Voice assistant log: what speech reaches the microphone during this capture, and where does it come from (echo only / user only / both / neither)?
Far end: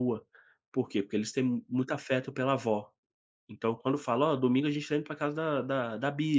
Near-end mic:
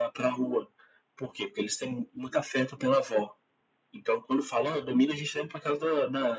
echo only